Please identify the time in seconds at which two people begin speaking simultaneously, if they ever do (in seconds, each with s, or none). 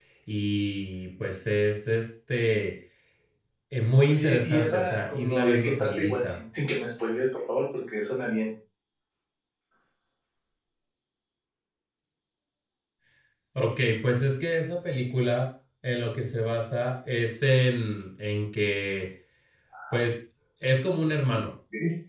4.1 s